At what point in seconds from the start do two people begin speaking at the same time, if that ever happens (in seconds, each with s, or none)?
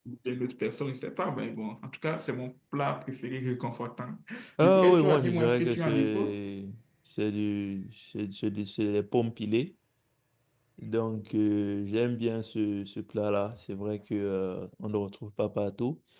4.6 s